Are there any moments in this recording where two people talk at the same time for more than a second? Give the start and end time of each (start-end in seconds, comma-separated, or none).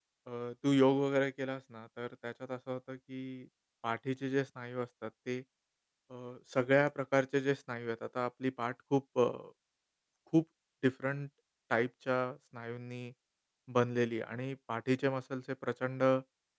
none